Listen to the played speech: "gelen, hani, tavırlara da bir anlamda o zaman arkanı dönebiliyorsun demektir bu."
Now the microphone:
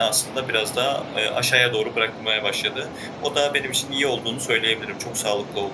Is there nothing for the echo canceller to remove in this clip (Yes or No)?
Yes